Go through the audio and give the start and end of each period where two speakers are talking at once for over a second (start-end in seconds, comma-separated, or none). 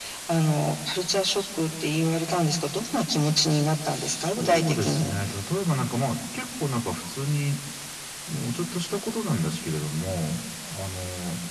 3.9-5.1